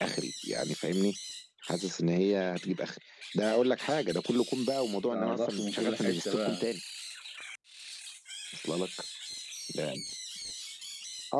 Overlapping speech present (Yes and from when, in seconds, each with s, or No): Yes, from 5.1 s